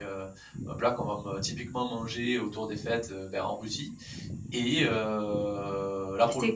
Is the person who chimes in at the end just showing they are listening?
No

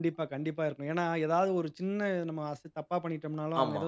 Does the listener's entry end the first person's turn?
No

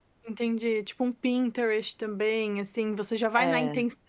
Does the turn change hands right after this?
No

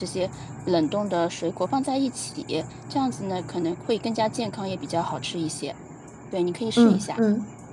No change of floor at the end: No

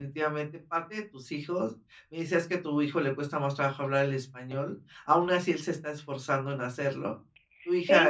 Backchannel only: No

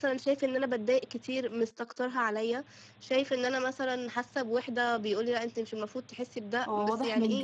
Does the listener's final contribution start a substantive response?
Yes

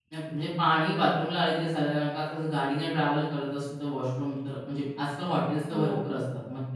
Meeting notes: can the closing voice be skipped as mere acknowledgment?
Yes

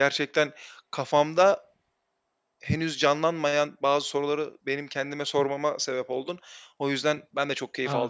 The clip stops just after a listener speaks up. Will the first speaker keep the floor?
No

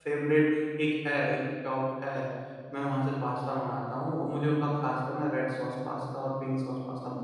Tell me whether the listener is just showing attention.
Yes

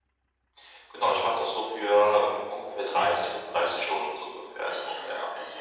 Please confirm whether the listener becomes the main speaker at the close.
Yes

